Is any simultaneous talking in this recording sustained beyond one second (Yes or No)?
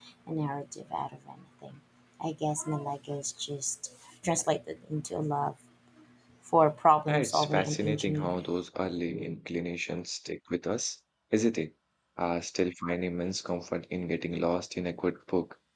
Yes